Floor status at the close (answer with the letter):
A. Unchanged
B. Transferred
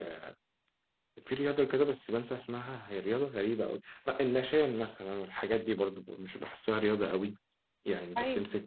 A